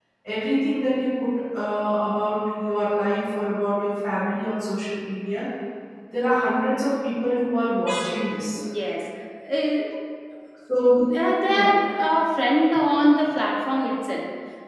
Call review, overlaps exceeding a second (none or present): none